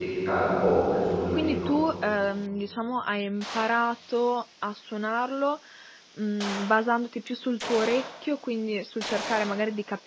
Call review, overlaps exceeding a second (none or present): none